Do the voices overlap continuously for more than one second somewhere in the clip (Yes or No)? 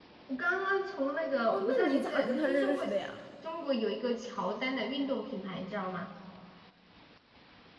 Yes